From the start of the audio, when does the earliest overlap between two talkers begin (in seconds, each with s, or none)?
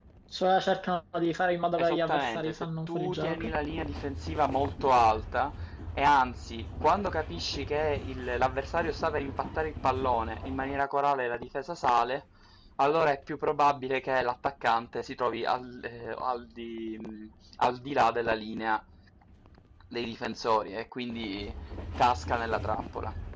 1.8 s